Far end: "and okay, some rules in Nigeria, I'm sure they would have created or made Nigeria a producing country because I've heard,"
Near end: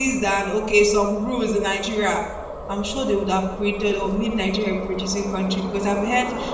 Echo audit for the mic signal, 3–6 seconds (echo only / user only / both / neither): echo only